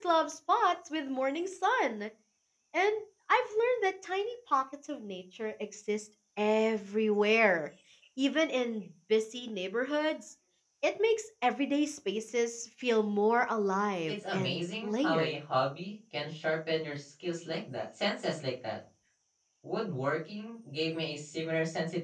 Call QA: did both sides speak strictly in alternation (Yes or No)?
No